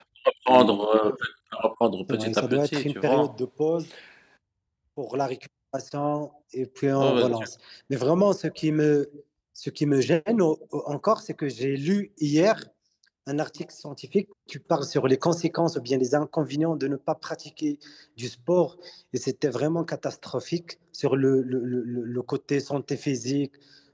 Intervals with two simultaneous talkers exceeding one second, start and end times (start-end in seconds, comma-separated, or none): 2.1-3.3